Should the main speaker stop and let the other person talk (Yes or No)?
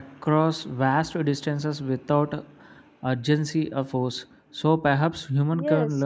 Yes